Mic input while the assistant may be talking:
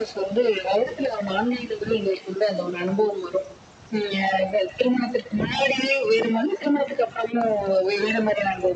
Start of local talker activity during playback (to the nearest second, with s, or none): none